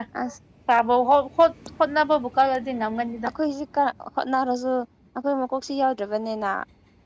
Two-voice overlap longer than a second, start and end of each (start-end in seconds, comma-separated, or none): none